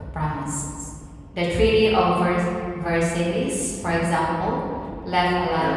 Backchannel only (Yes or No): Yes